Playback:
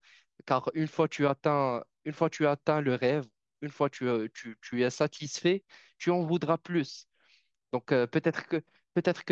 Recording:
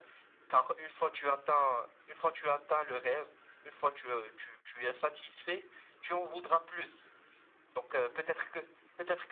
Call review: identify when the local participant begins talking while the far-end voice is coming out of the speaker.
none

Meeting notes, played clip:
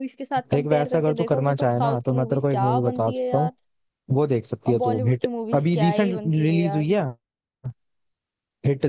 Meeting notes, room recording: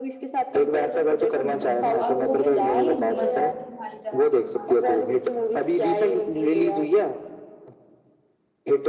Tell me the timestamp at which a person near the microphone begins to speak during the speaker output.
1 s

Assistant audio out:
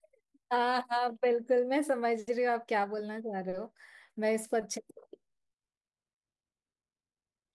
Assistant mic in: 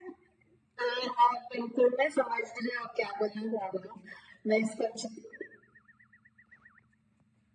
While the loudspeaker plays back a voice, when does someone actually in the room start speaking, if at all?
none

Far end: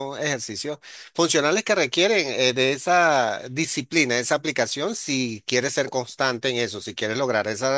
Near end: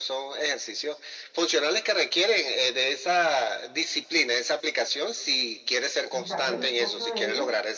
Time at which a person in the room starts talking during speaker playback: 6 s

